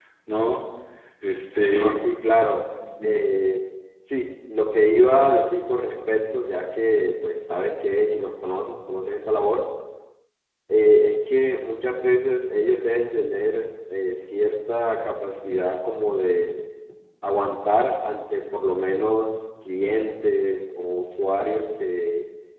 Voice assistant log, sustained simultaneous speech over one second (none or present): none